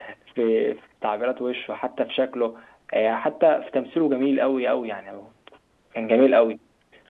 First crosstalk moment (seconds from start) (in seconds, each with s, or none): none